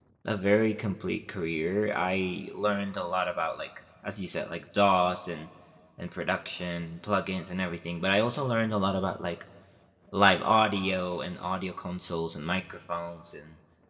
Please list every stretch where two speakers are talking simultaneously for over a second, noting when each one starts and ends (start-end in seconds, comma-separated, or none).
none